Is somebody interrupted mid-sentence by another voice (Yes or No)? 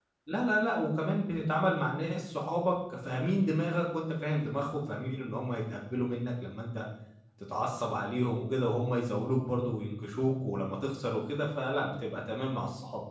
No